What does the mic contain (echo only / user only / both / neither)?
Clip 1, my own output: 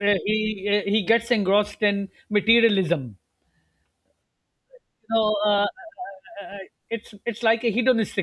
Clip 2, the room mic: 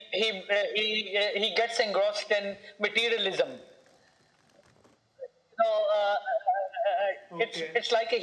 both